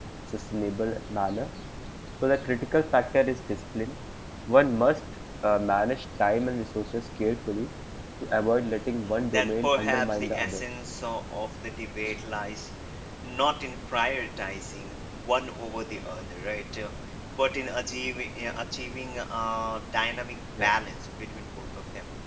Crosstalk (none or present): present